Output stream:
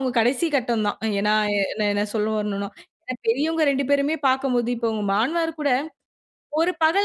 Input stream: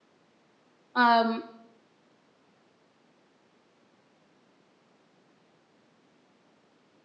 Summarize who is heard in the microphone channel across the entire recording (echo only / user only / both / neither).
user only